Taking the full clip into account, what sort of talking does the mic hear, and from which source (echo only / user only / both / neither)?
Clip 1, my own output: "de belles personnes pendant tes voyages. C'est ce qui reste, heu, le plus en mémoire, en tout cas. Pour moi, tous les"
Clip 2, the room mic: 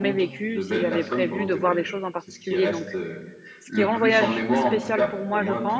both